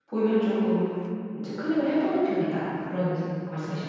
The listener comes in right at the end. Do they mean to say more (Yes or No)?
Yes